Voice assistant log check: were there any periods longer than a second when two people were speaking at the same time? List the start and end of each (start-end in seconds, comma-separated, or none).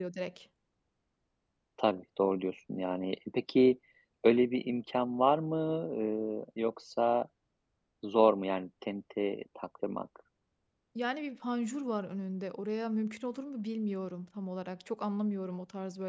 none